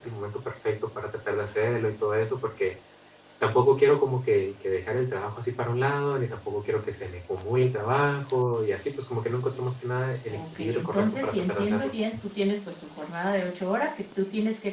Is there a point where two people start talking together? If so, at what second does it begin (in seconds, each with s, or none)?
10.3 s